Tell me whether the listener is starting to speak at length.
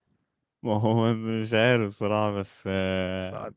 No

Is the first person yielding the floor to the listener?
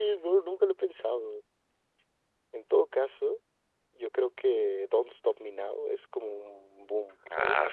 Yes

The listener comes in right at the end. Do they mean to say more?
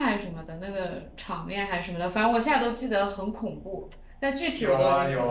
Yes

